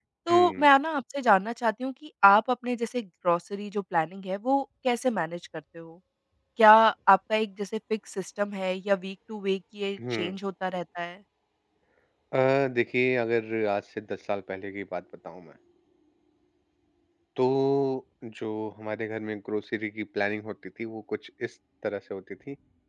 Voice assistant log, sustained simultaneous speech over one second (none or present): none